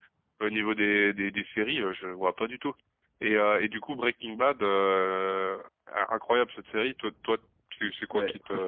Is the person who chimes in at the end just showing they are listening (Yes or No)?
No